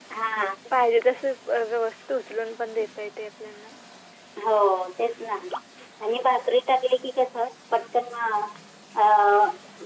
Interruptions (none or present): none